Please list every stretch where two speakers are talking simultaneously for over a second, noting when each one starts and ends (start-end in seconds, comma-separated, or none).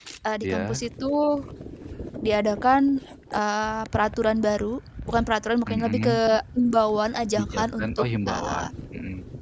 7.3-8.7